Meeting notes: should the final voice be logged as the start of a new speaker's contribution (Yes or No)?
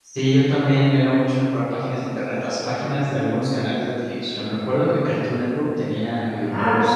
Yes